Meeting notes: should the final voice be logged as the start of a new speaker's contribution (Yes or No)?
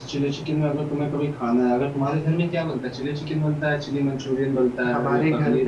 Yes